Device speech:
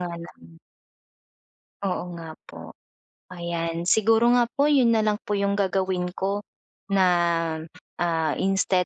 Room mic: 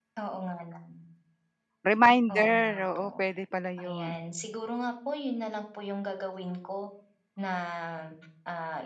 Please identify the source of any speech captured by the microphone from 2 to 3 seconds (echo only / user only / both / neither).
both